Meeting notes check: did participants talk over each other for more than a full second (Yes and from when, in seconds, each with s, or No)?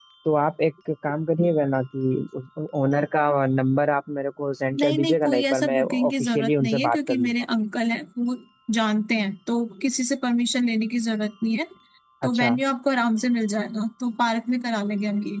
Yes, from 4.8 s